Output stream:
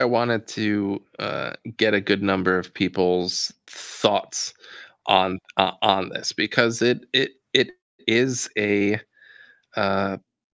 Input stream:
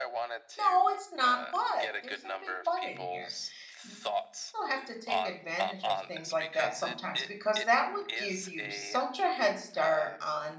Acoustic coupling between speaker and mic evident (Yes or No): Yes